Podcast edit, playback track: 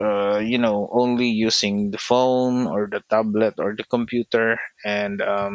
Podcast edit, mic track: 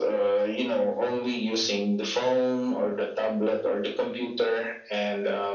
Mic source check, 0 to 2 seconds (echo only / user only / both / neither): echo only